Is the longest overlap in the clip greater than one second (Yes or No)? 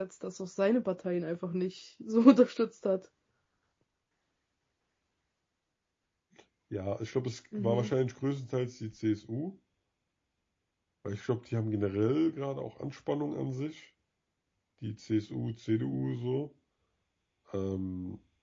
No